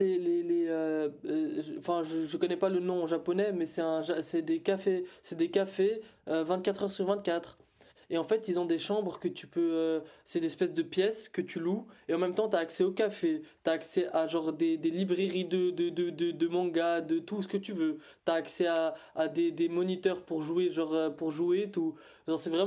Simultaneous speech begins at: none

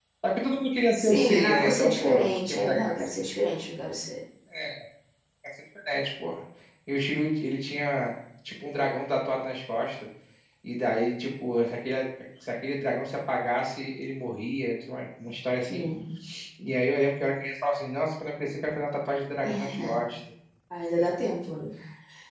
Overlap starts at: 1.0 s

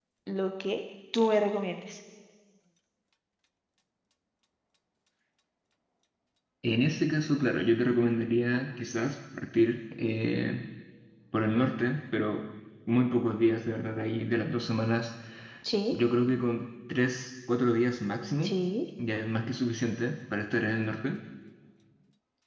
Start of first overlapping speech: none

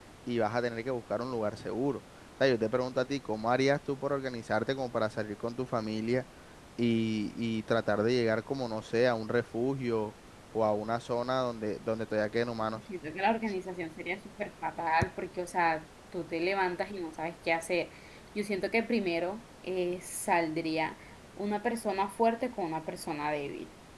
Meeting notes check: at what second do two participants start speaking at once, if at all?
none

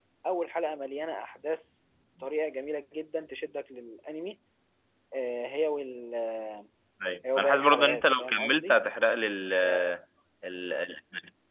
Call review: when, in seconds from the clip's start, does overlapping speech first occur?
7.2 s

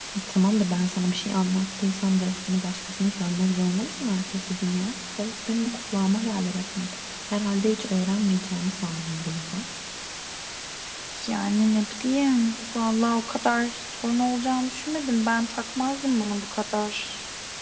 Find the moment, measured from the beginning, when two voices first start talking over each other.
none

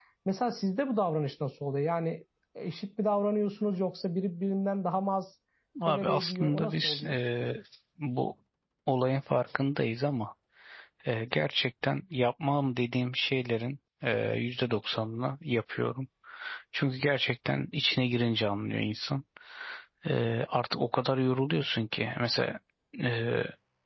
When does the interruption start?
5.8 s

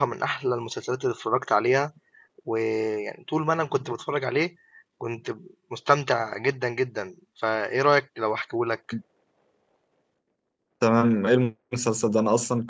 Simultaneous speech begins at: none

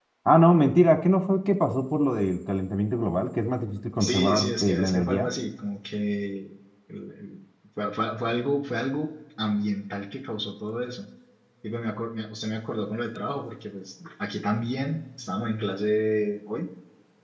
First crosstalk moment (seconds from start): 4.0 s

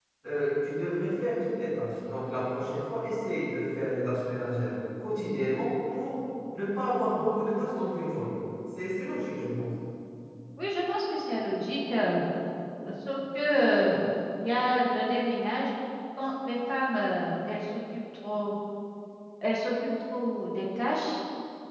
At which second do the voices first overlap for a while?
none

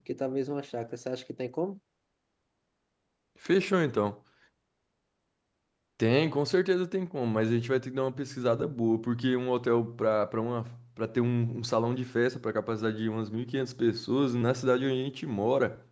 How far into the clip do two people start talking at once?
none

